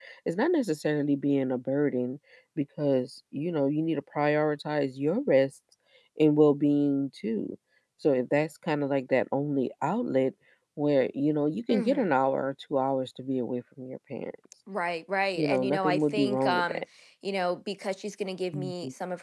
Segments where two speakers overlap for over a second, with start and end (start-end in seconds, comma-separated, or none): 15.4-16.8